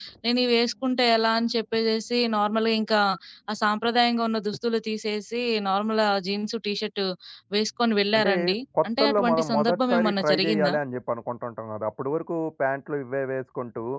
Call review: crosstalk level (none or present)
present